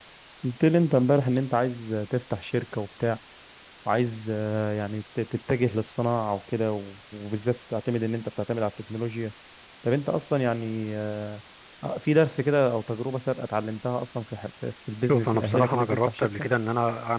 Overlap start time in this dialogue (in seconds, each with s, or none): 15.0 s